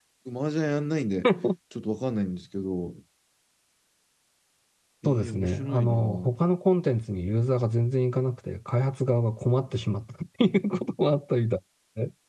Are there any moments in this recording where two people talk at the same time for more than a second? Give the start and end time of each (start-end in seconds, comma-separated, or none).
5.0-6.3